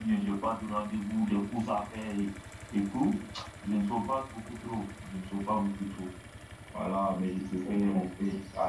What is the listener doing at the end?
listening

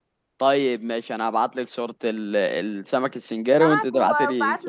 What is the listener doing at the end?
taking over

